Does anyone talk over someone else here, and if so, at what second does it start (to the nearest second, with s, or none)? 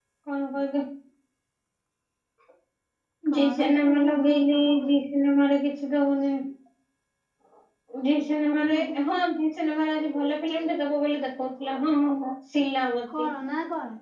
3 s